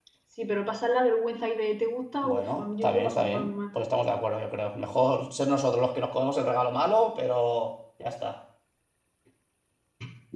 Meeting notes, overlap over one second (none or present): present